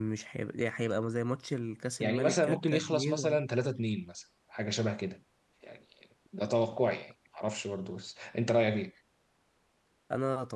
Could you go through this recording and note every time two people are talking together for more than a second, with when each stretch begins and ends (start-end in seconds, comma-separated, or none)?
2.0-3.4